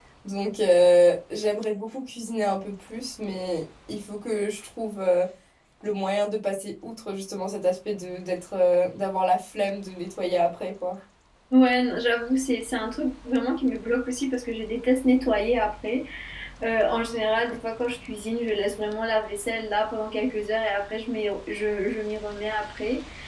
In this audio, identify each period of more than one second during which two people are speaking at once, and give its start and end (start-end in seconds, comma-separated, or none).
none